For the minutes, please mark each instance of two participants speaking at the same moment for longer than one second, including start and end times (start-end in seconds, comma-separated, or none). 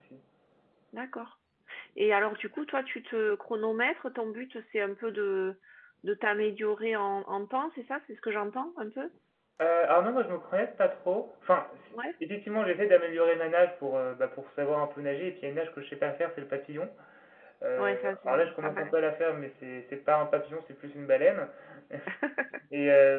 17.8-19.1